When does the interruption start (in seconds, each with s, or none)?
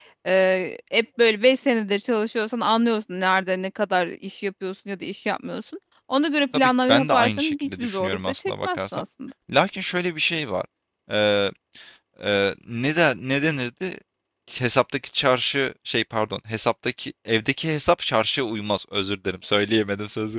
6.5 s